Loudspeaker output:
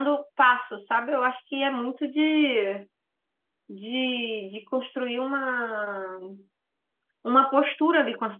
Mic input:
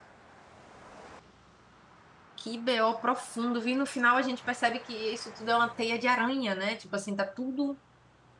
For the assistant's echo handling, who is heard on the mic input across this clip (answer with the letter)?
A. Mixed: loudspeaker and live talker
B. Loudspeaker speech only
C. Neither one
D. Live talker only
D